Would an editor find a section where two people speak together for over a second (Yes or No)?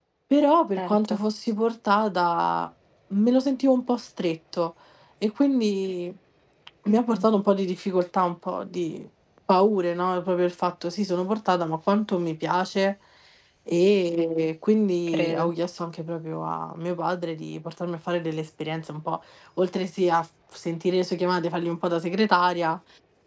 No